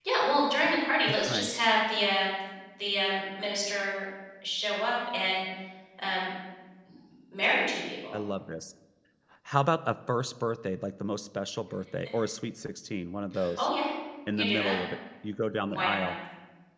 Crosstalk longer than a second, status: none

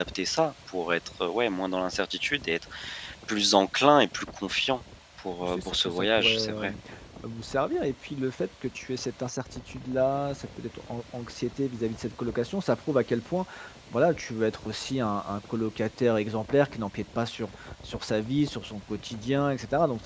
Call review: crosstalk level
present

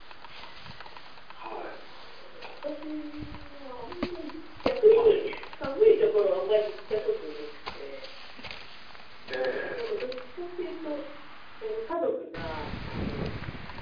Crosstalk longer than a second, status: none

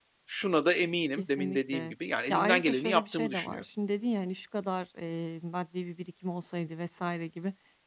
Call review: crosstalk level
present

